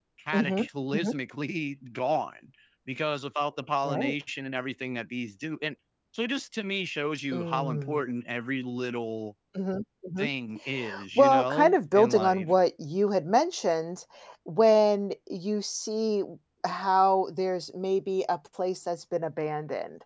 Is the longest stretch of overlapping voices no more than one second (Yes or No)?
No